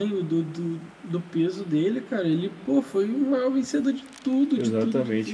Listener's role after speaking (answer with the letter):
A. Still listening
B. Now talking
B